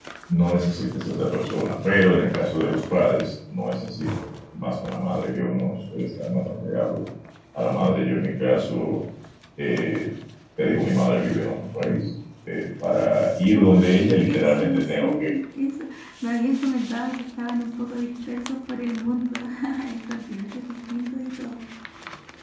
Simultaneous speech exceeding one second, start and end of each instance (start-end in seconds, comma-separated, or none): 13.6-15.3